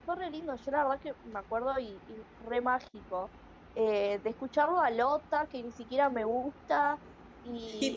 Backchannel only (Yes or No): Yes